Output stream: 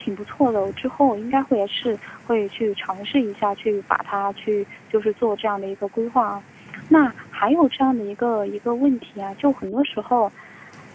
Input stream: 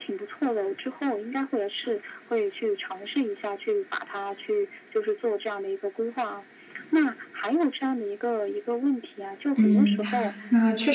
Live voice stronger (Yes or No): Yes